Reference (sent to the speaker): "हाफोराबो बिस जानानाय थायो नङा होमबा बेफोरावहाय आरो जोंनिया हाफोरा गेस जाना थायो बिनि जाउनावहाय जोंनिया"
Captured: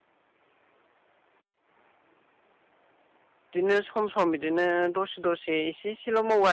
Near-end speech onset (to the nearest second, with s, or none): 4 s